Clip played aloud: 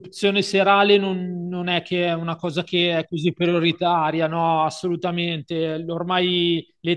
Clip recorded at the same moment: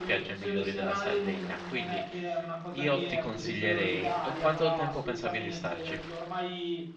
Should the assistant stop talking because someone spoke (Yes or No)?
Yes